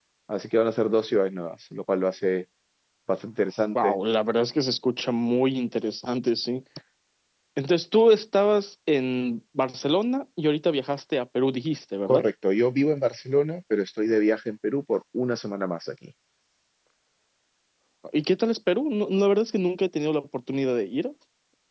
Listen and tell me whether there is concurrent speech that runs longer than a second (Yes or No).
No